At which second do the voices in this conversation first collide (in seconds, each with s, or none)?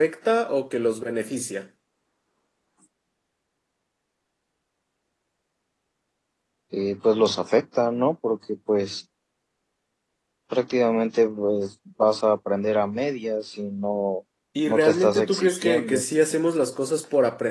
14.7 s